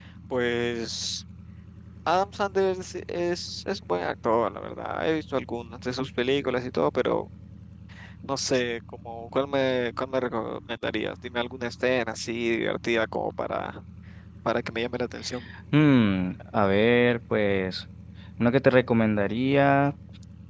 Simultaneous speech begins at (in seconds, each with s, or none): none